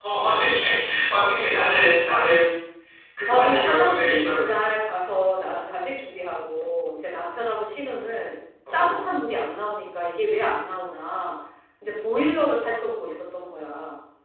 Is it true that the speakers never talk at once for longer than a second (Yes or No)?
No